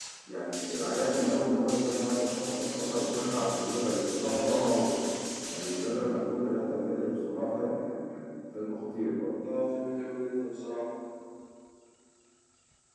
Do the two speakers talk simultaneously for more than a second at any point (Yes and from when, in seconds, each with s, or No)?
No